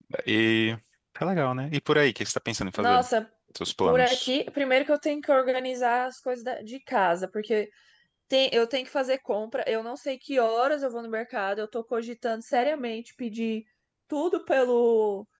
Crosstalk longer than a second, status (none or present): none